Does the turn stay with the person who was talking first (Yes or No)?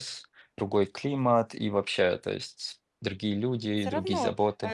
No